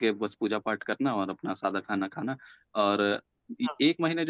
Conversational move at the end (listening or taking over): listening